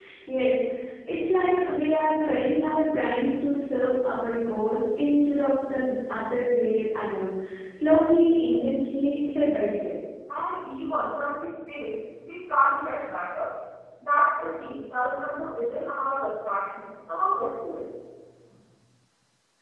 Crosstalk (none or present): none